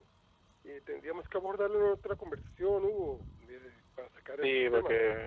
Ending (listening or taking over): taking over